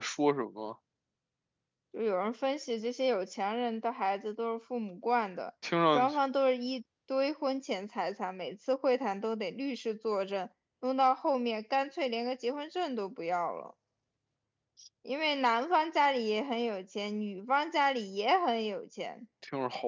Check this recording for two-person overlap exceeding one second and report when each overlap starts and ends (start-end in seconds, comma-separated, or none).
none